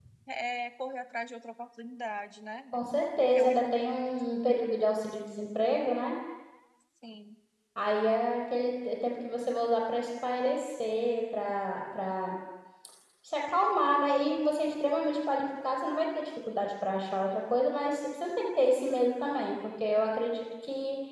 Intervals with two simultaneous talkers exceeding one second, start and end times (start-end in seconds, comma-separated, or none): none